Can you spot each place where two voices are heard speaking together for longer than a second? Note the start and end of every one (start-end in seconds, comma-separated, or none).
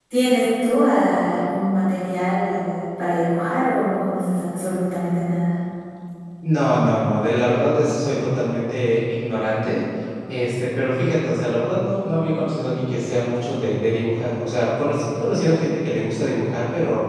none